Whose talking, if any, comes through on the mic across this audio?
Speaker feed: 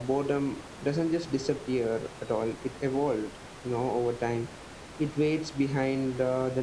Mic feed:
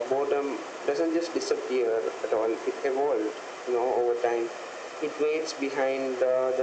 echo only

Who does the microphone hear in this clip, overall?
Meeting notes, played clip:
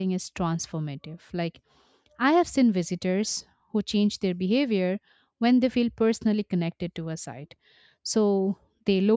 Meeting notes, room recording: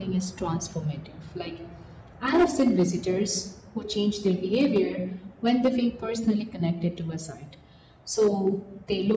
echo only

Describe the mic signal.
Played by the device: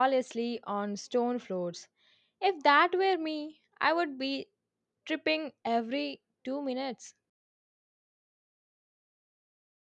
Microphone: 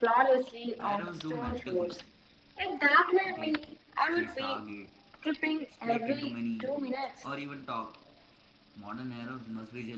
both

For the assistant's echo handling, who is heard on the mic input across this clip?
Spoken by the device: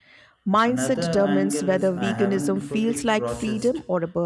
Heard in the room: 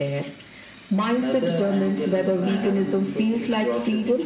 echo only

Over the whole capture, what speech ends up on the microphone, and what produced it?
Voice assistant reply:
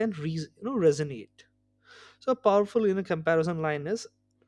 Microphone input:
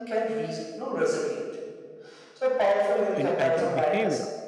both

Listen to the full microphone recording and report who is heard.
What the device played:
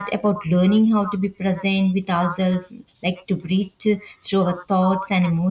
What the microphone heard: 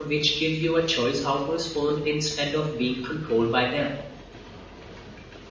user only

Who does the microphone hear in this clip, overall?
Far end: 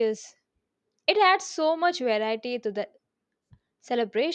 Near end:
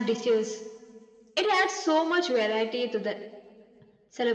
echo only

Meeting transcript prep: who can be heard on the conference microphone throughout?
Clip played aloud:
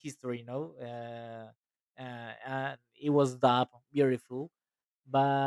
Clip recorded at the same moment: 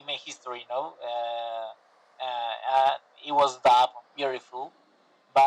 echo only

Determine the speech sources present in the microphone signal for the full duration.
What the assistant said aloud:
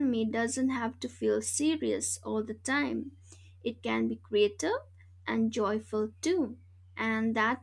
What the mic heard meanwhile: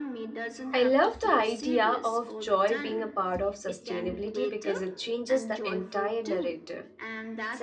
both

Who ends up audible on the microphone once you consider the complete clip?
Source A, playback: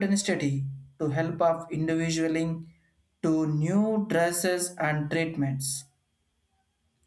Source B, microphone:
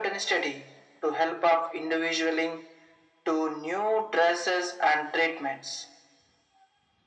echo only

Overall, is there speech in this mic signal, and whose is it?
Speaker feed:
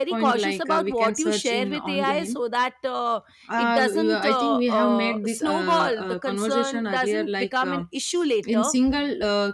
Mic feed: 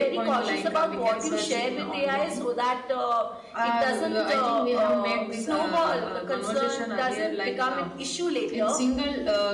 echo only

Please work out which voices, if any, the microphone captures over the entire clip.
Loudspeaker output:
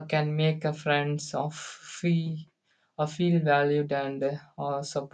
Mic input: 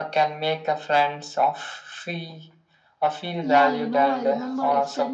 both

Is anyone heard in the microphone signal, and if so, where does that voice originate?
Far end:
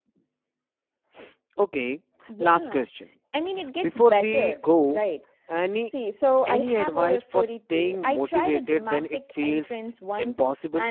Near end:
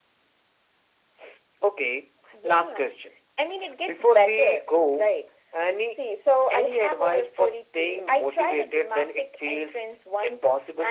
echo only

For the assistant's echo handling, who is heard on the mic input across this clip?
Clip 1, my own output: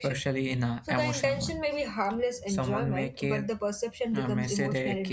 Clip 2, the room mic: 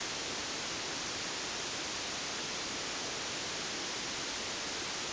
neither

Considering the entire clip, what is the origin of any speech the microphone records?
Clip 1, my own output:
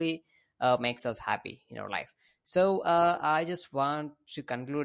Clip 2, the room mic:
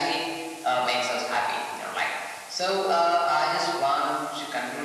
echo only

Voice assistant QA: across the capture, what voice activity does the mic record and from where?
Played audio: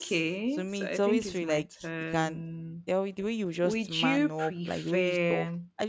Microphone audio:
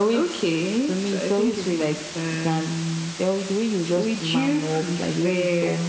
echo only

